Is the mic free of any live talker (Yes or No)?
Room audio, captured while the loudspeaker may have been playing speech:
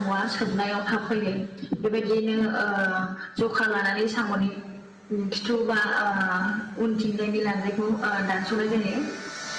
Yes